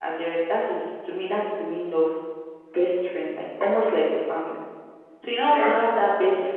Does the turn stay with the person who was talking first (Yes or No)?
Yes